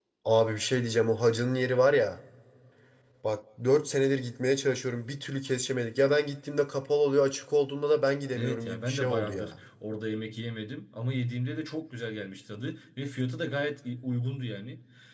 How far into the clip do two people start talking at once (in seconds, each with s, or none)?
8.3 s